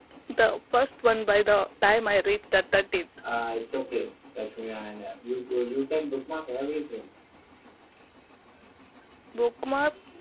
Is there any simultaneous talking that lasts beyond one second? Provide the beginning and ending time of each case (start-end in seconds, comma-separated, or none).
none